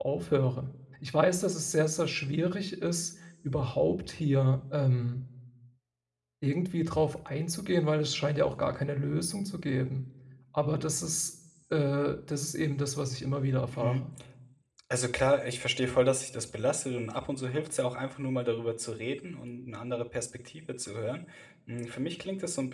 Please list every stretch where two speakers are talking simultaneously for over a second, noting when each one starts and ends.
none

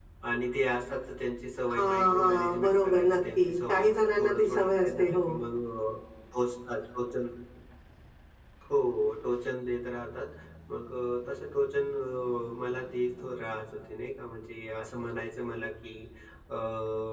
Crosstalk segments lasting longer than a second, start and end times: 1.7-5.2

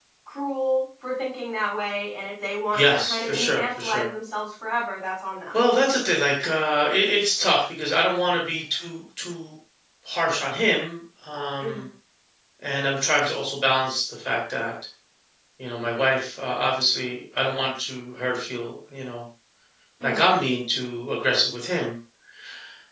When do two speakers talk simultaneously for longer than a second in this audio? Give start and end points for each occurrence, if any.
2.8-4.1

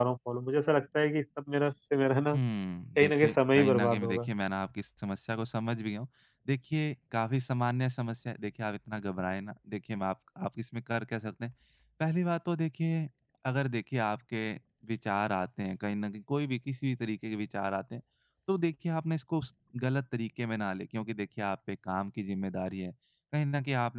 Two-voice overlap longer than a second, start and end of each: 3.0-4.3

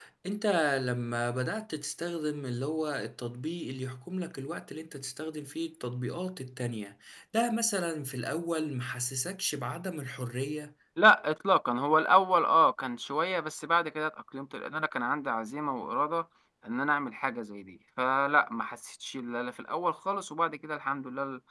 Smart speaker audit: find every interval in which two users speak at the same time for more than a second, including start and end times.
none

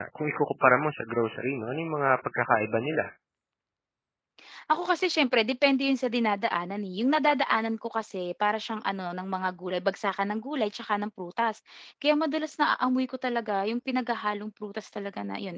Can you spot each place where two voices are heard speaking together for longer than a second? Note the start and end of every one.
none

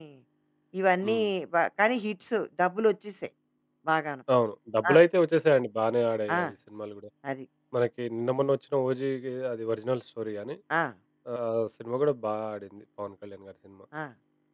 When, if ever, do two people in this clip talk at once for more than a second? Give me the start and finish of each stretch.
none

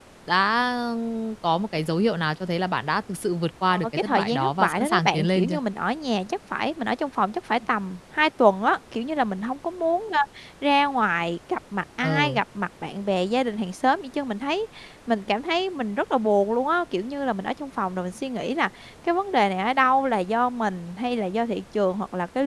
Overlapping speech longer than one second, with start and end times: 3.8-5.6

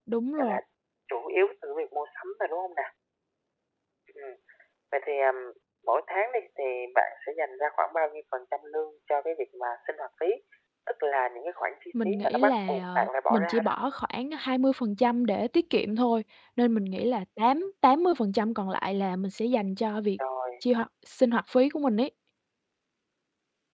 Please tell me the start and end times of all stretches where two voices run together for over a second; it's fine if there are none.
12.0-13.7

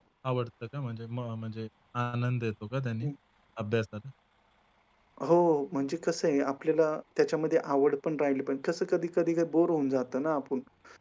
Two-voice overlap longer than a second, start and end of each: none

